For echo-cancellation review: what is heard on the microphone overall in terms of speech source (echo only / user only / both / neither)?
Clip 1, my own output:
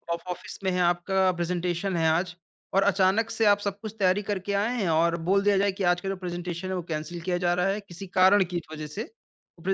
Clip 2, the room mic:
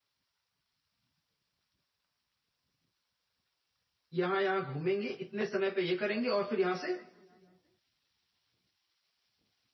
user only